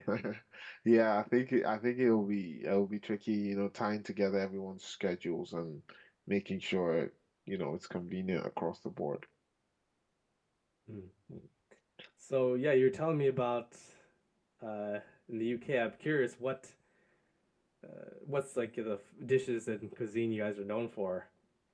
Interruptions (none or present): none